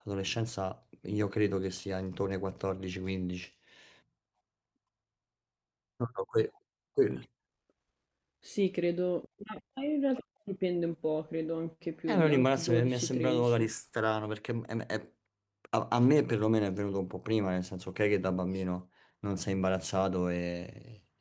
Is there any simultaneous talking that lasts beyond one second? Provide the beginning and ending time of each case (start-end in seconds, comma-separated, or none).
12.1-13.7